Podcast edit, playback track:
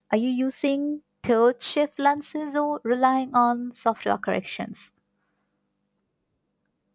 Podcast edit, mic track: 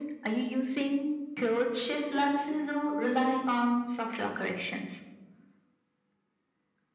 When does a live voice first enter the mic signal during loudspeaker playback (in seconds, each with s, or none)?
none